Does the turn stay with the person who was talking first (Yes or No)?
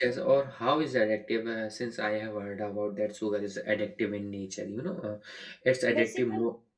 No